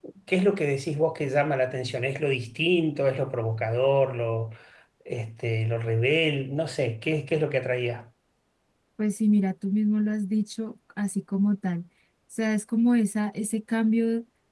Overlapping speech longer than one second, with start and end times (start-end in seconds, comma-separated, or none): none